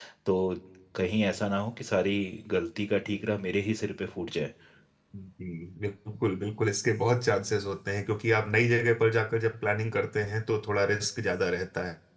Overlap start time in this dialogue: none

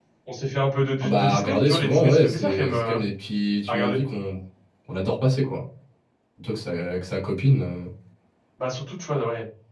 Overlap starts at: 1 s

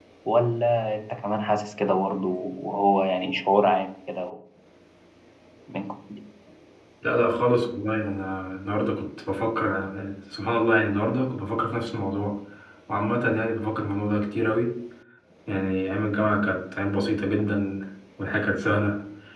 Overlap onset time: none

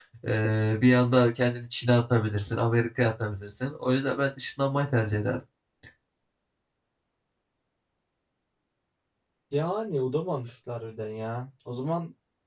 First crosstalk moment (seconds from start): none

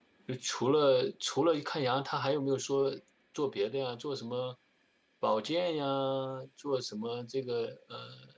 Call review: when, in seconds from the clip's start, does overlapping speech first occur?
none

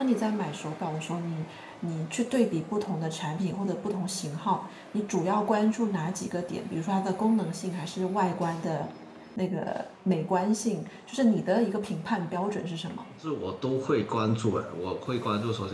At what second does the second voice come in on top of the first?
none

